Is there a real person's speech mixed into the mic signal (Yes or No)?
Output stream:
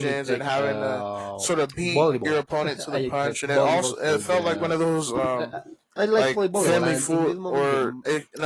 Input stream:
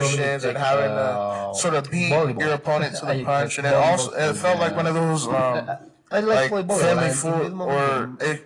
No